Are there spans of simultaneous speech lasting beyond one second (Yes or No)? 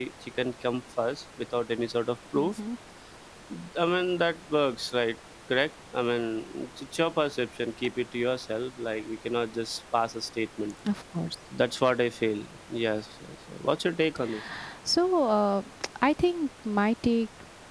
No